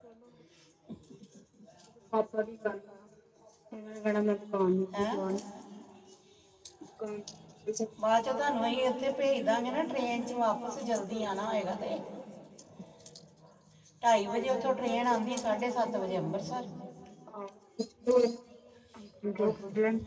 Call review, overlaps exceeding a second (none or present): none